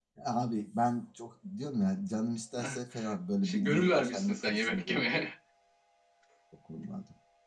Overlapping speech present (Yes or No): Yes